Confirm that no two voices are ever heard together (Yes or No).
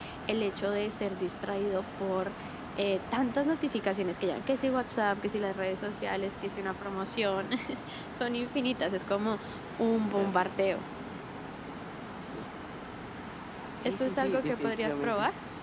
No